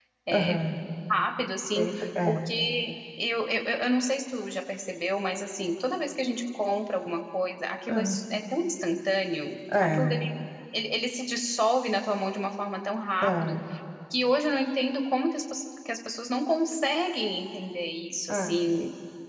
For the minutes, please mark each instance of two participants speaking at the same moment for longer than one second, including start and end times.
none

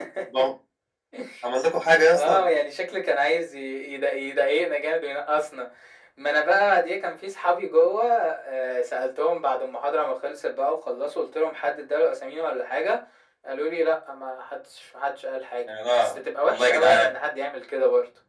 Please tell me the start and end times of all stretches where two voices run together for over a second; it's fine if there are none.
15.9-17.1

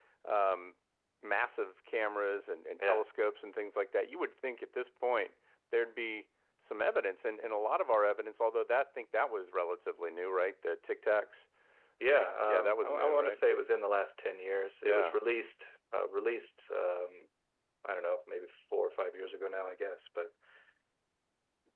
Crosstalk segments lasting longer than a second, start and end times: 12.2-13.4

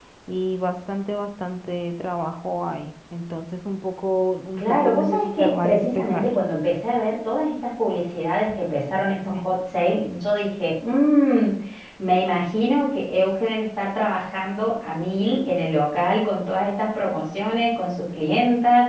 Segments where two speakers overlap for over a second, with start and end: 4.6-6.3

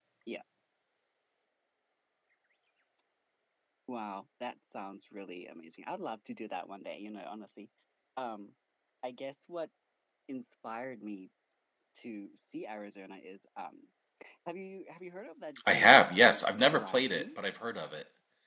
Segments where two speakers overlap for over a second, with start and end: 15.7-17.4

